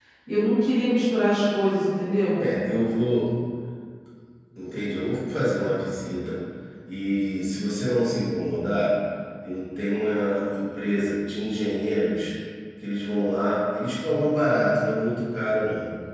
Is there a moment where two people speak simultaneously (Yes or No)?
No